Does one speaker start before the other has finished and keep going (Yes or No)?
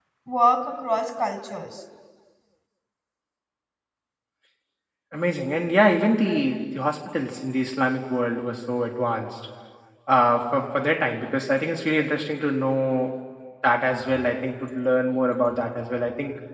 No